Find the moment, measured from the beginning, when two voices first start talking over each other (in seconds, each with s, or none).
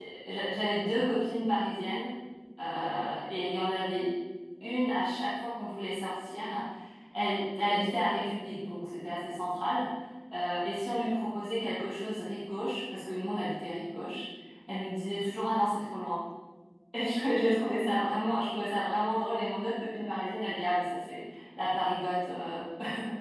none